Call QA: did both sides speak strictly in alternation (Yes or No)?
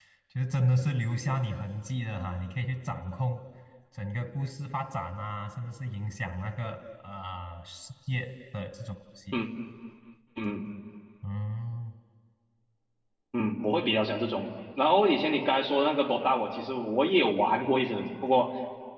Yes